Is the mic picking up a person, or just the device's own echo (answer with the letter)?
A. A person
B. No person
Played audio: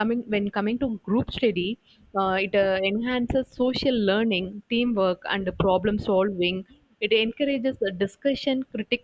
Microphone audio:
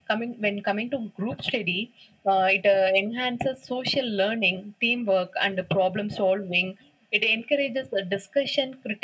B